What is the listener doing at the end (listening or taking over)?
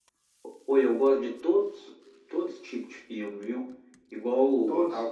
listening